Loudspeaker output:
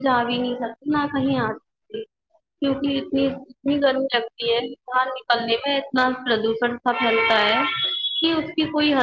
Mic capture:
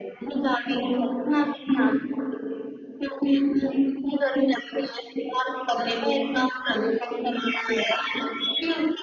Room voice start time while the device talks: none

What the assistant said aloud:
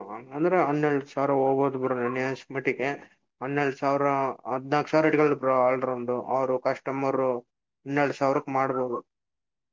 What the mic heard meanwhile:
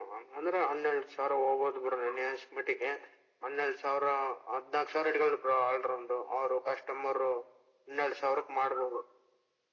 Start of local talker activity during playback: none

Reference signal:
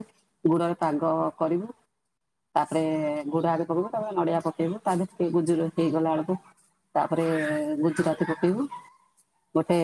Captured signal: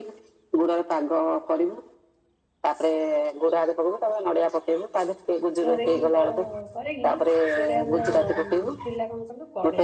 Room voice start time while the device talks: 5.6 s

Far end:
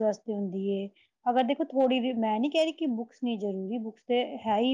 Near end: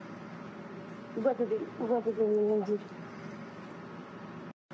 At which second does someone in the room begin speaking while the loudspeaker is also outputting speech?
1.2 s

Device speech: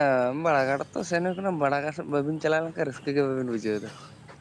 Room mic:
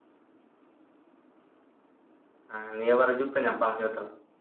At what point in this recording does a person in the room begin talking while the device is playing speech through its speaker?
2.5 s

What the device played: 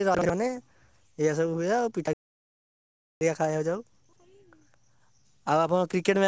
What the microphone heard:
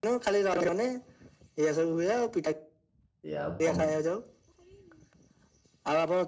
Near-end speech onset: 3.2 s

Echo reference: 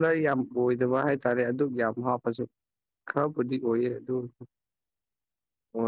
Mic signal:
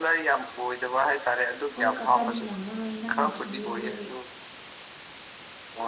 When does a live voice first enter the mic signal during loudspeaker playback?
1.8 s

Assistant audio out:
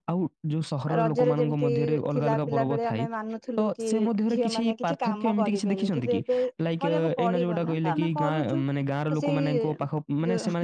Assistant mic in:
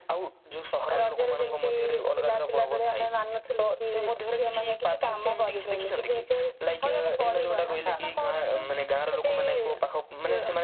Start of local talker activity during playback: none

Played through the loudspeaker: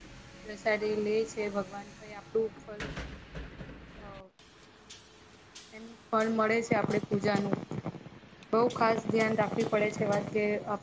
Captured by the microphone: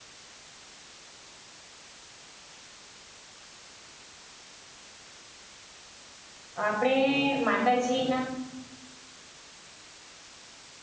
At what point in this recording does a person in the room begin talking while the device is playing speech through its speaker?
6.6 s

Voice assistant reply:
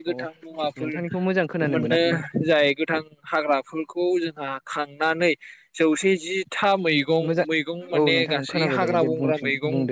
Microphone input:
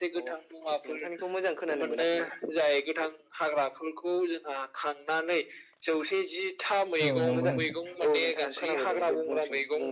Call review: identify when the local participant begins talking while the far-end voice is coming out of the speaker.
7.0 s

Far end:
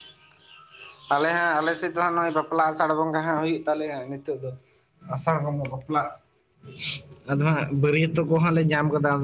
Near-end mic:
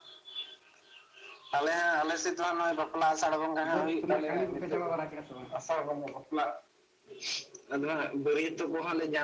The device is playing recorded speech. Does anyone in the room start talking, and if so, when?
3.7 s

